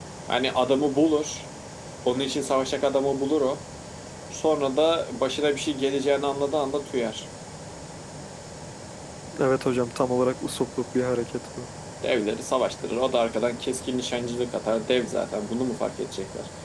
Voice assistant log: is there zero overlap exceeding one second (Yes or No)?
Yes